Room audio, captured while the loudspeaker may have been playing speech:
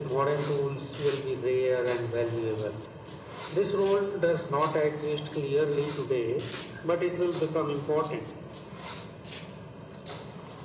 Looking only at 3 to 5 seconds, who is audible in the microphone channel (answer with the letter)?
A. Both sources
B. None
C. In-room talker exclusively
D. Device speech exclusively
D